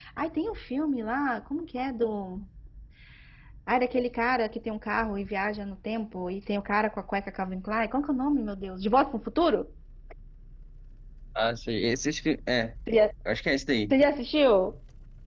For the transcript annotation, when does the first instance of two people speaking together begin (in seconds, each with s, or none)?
none